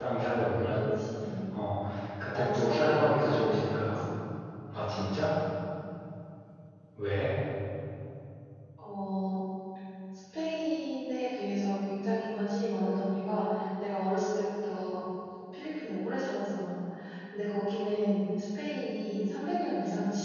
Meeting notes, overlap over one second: present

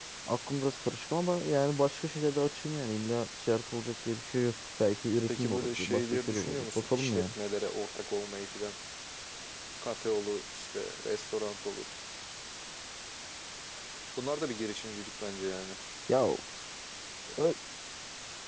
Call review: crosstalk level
present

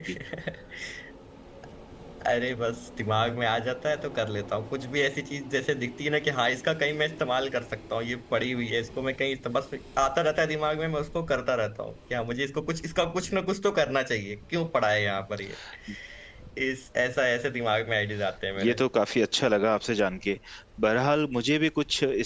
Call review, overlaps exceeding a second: none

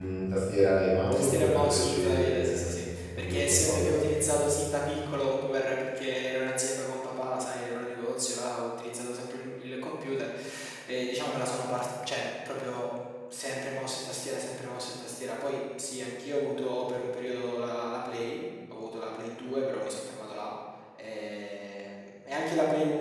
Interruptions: present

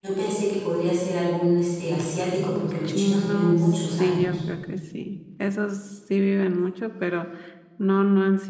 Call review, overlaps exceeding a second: present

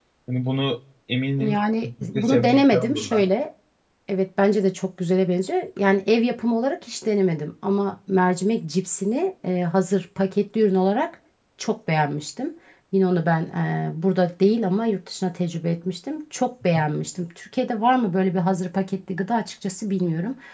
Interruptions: present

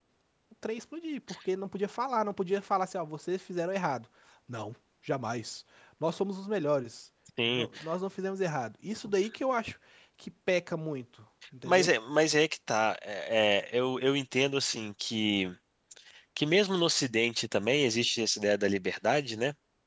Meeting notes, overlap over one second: none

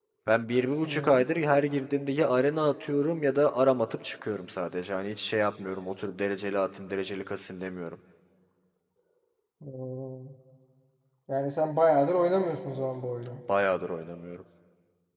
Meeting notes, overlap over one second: none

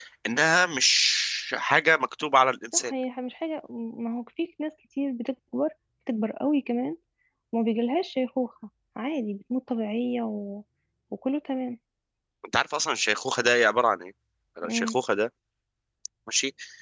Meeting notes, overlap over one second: none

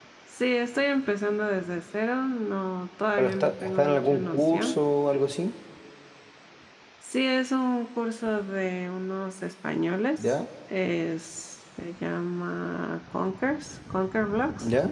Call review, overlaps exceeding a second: present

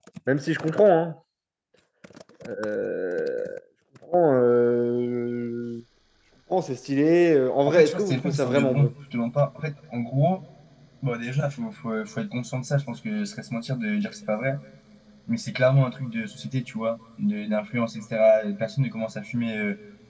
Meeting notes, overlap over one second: present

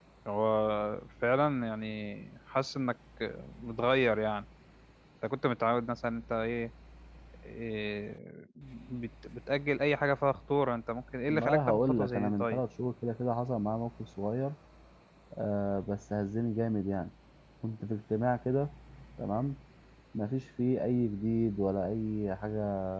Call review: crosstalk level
present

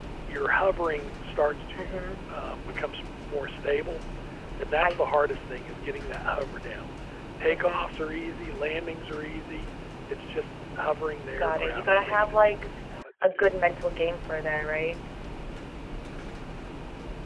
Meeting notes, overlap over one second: present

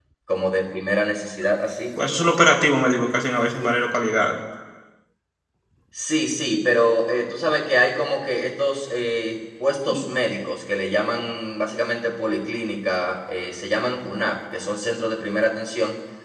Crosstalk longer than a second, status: none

